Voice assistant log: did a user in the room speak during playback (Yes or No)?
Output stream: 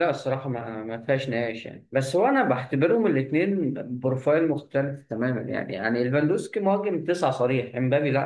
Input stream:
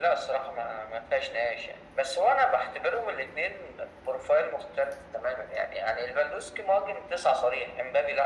No